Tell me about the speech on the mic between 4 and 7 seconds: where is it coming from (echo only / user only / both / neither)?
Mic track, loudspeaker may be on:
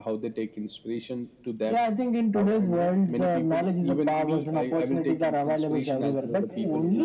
both